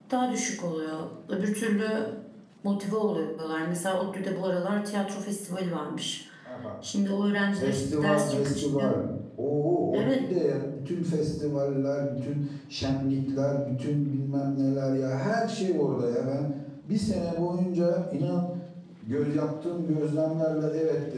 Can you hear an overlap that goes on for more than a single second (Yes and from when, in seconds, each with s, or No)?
Yes, from 7.6 s